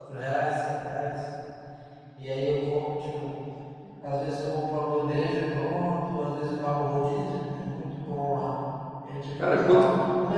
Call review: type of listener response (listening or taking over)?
listening